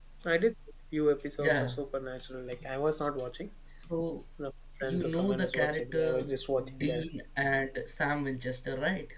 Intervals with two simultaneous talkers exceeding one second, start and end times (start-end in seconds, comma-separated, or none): 4.8-6.2